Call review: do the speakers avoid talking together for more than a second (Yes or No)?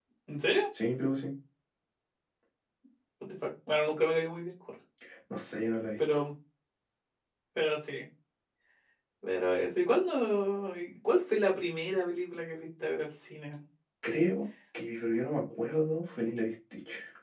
Yes